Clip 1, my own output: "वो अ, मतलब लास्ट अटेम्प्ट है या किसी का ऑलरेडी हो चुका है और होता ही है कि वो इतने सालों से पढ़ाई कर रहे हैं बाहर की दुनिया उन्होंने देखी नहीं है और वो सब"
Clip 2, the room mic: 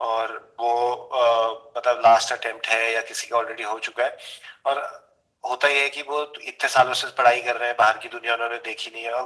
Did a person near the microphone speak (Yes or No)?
No